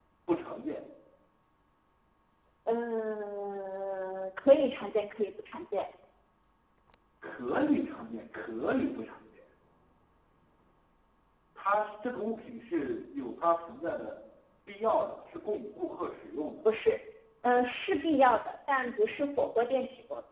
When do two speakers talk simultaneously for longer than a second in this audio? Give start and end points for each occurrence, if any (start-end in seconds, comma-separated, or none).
none